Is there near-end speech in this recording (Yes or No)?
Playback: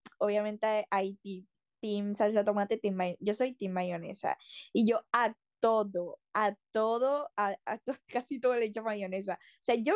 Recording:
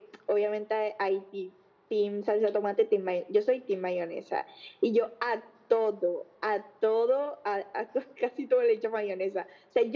No